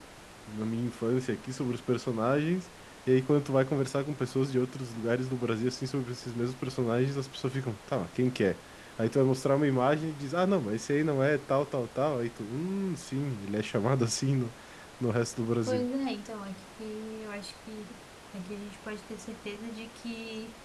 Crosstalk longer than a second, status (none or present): none